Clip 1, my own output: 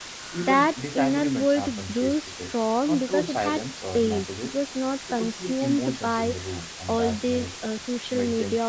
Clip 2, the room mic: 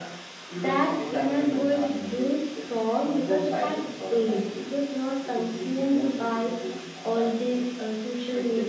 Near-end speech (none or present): present